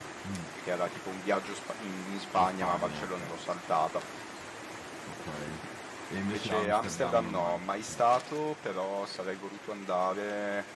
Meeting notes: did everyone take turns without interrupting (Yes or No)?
No